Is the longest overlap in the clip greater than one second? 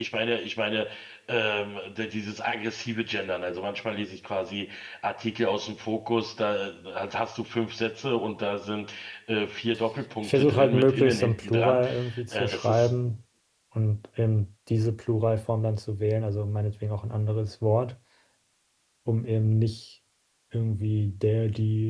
Yes, from 10.2 s

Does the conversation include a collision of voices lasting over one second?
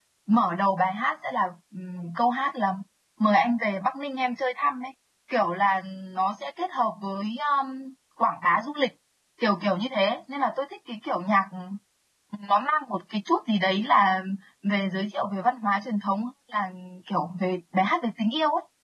No

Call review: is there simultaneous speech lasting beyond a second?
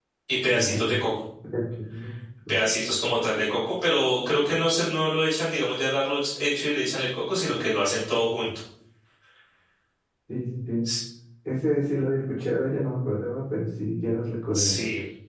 No

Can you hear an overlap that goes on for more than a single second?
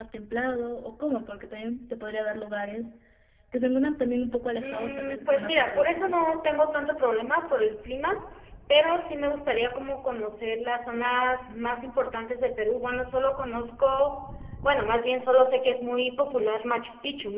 Yes, from 4.6 s

